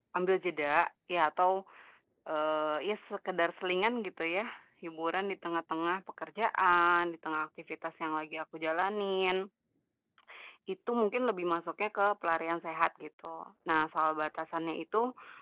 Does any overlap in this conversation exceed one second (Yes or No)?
No